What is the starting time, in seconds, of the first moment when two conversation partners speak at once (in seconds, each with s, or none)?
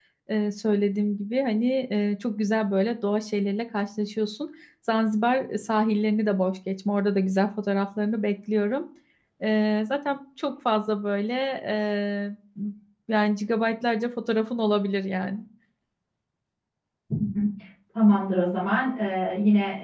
none